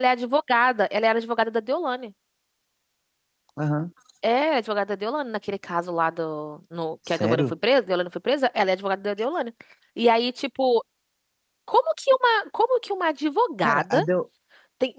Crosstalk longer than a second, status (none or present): none